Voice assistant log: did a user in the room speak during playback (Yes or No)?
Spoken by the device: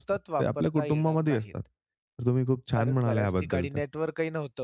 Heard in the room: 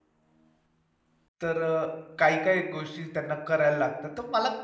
Yes